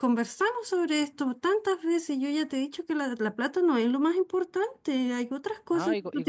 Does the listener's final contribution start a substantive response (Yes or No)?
Yes